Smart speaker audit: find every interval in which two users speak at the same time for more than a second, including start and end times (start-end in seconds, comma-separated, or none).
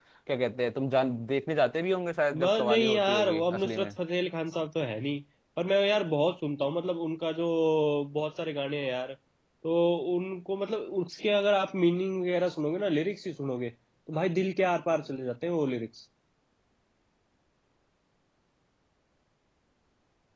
2.3-4.0